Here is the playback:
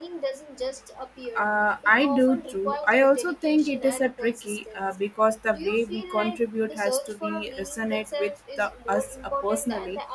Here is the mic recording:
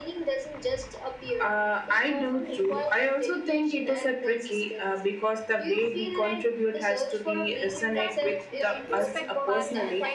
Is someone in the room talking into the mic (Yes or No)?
Yes